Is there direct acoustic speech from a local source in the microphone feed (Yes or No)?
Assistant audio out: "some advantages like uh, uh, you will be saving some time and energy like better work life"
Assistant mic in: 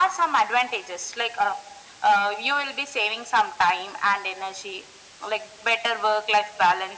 No